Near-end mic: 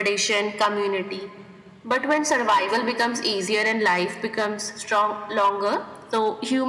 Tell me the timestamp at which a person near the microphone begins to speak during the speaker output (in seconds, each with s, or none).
none